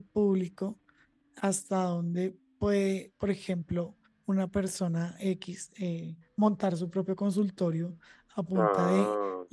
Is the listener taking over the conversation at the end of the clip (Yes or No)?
No